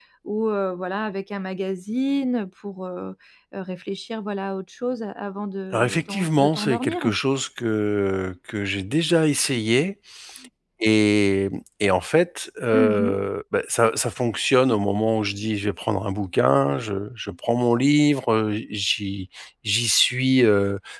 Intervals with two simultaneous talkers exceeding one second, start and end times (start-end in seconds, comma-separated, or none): 5.7-7.1